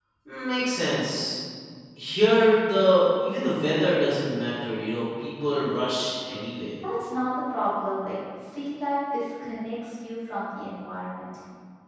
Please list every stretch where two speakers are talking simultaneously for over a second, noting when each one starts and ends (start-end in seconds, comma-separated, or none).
none